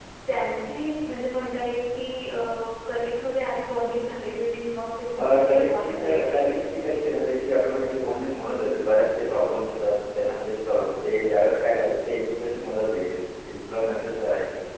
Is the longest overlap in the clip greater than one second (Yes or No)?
Yes